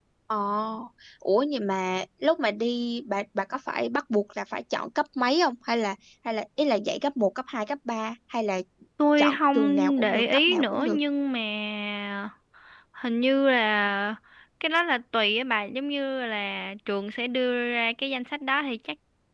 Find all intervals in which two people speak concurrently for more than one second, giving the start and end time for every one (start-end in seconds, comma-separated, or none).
9.2-11.0